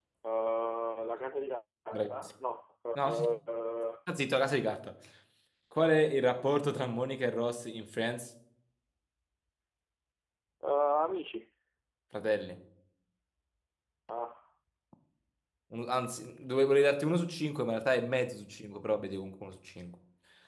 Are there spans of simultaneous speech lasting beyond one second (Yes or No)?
No